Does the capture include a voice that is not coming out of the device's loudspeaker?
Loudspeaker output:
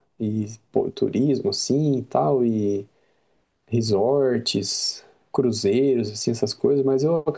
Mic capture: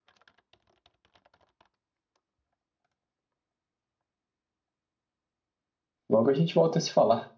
Yes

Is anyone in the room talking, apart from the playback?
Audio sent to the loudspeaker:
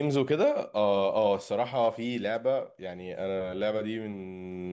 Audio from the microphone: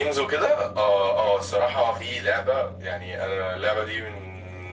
No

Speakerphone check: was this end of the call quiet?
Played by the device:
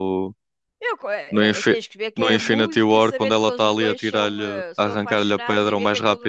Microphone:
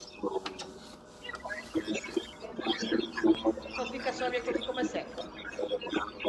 No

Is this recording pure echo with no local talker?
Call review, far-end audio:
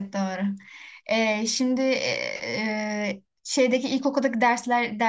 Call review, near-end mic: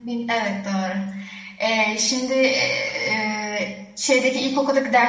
Yes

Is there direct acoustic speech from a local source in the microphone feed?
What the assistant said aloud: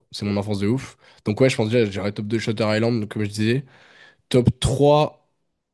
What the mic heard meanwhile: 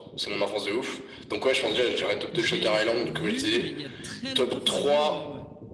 Yes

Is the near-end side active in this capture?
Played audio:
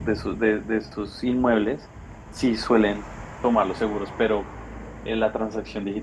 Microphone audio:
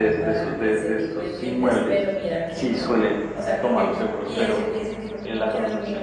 Yes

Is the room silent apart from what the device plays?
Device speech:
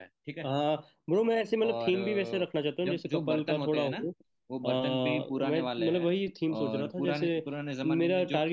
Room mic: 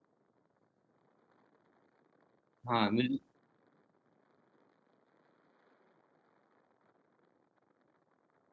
No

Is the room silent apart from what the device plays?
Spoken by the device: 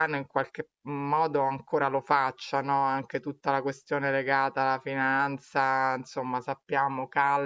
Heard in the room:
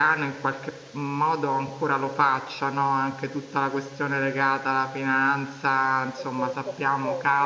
No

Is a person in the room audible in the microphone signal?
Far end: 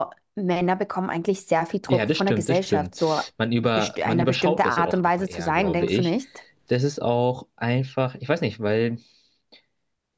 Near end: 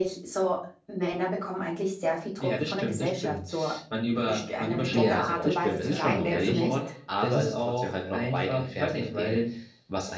Yes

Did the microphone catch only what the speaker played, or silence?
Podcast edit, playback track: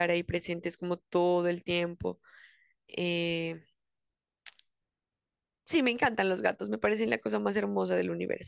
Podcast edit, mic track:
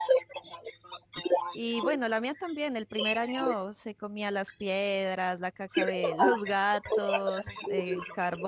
No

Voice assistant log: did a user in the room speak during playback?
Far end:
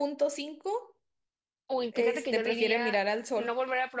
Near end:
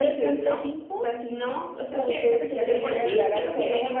Yes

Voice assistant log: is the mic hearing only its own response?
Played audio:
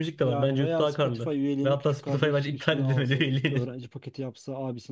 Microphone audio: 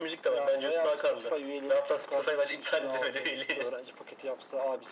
Yes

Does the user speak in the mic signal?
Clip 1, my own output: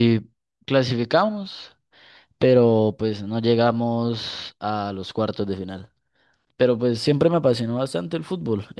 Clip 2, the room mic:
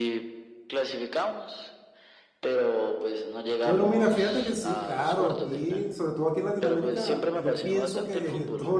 Yes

